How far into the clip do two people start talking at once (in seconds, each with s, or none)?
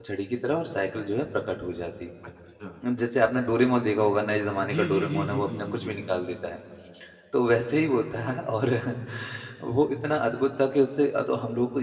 4.6 s